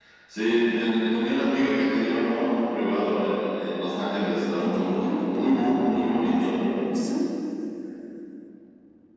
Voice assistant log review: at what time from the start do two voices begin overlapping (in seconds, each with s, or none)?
4.6 s